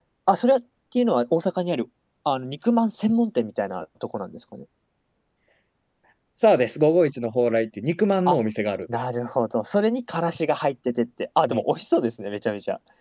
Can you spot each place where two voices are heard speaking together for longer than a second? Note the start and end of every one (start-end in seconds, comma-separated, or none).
none